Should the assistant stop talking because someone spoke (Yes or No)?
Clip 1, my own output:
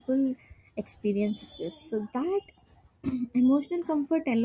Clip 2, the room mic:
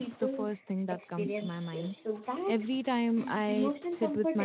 Yes